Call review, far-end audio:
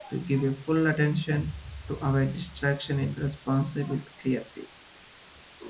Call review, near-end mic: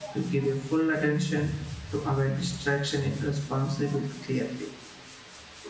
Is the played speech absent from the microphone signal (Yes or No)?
No